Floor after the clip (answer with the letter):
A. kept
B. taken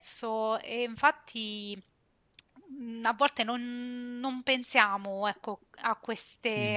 A